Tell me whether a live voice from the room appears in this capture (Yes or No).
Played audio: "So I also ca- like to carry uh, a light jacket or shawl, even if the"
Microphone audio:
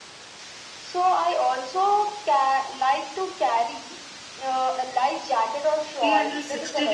Yes